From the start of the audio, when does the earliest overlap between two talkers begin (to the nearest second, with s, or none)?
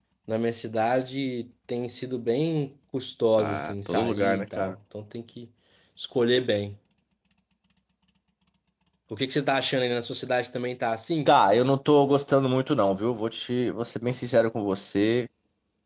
3 s